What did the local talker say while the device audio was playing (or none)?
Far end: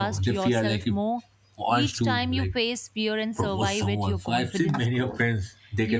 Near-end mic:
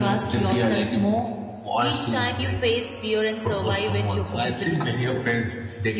none